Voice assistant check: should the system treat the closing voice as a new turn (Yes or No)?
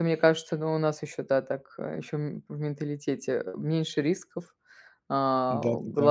No